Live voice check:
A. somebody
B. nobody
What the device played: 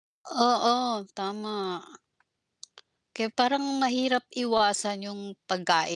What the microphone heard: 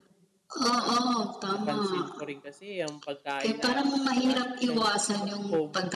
A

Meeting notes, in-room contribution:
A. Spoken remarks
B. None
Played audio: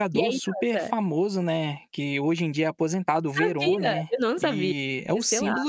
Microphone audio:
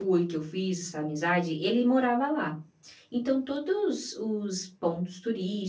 A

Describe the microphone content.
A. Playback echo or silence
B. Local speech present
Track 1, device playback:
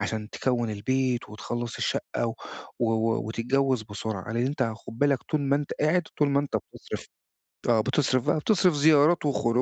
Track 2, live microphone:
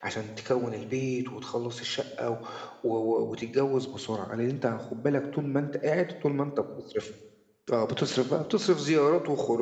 A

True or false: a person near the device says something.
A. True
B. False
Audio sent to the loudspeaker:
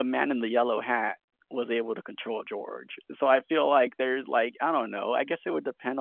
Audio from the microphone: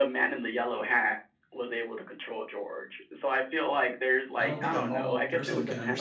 A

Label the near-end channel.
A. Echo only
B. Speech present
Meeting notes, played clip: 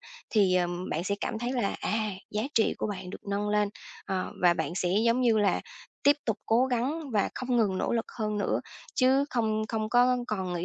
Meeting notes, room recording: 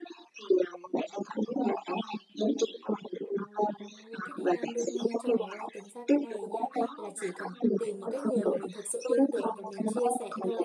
B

